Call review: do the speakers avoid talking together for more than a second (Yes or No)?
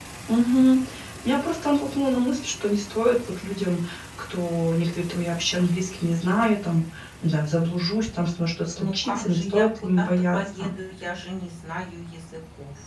No